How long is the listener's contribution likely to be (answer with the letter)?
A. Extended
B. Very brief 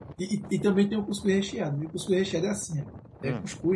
B